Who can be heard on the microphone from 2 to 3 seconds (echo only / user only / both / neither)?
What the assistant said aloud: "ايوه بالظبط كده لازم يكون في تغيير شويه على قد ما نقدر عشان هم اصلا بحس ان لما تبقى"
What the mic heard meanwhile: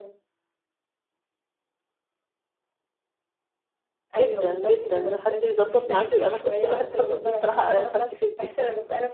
neither